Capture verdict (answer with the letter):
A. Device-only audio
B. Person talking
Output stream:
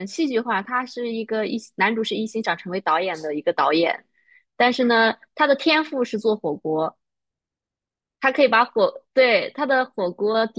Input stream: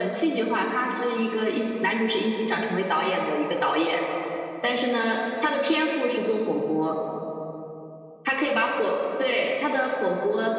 A